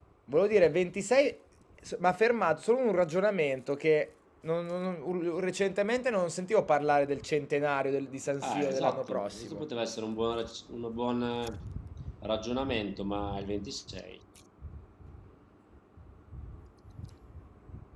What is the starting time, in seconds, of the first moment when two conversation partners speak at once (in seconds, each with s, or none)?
8.4 s